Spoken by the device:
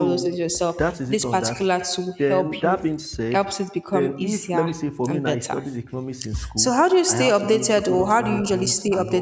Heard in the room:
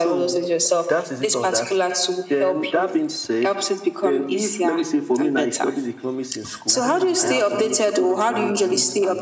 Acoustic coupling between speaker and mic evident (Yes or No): Yes